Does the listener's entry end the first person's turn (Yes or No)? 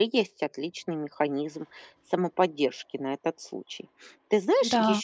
No